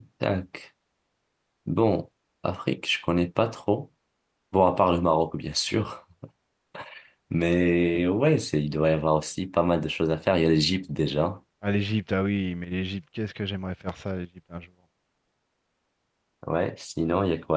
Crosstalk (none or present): none